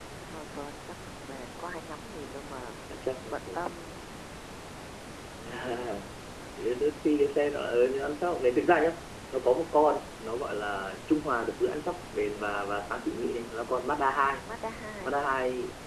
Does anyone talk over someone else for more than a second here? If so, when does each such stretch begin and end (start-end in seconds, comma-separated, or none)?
none